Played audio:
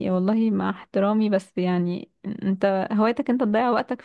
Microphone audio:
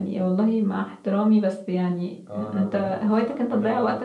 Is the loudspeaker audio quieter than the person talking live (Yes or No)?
No